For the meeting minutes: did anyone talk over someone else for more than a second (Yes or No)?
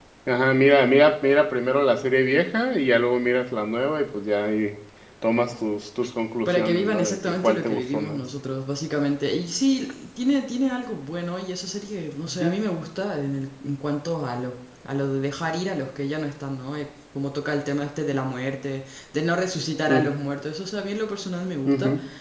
Yes